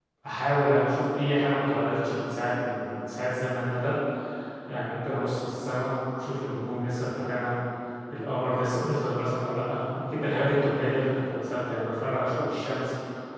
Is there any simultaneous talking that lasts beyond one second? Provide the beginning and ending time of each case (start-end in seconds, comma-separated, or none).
none